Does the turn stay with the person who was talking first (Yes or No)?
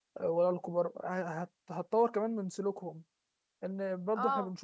Yes